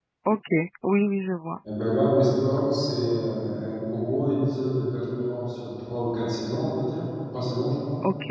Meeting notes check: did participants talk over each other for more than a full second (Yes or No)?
No